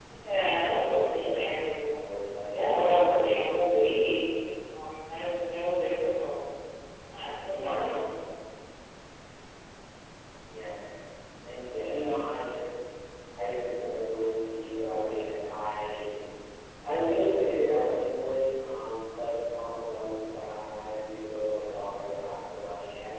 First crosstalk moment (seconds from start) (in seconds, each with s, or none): 0.7 s